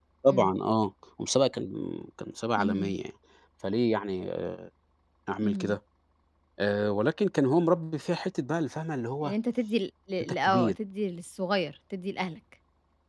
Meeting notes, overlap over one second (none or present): none